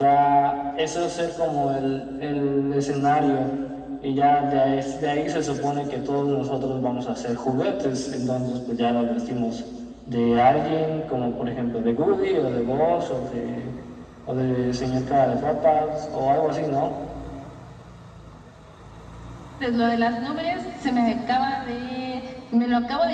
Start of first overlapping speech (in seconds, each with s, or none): none